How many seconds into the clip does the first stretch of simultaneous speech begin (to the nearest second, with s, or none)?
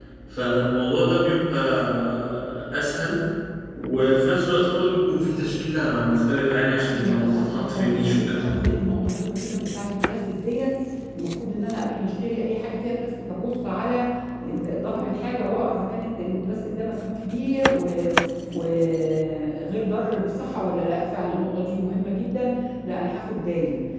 7 s